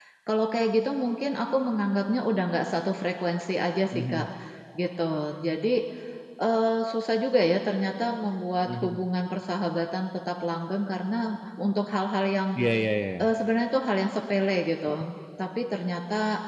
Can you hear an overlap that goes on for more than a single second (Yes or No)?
No